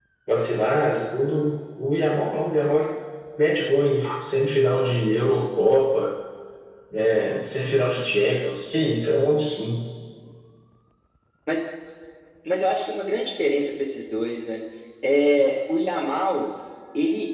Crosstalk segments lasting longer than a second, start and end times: none

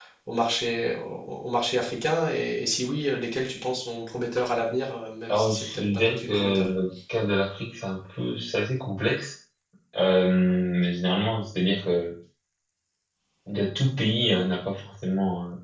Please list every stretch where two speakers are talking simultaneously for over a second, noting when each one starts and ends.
5.3-6.7

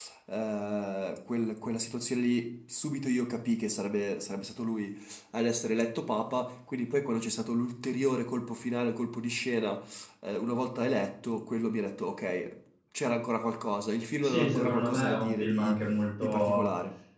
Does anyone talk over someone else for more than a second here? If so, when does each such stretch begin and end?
14.2-15.8

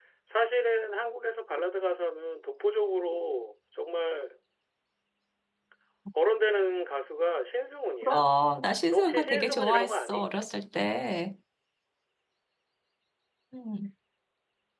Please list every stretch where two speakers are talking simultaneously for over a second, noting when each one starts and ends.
8.9-10.3

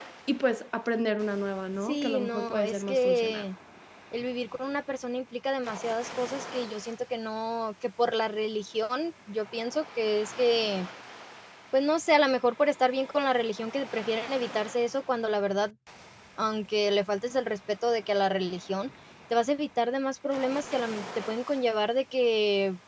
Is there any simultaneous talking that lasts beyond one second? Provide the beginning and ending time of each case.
1.8-3.4

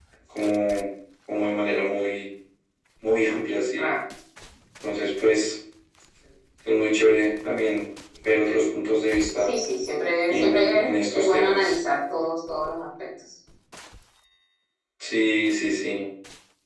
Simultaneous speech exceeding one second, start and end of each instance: 10.3-11.8

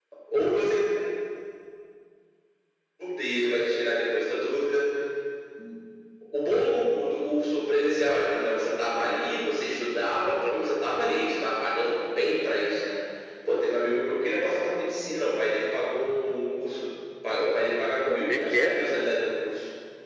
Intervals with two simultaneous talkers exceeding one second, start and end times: 17.4-18.7

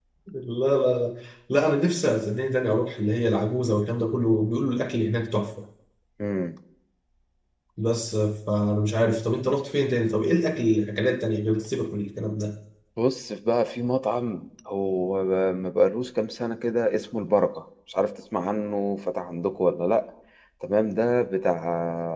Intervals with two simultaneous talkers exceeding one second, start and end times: none

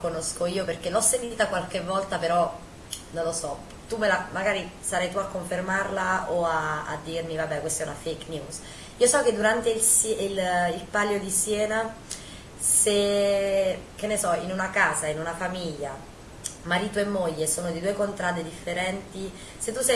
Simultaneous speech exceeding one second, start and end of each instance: none

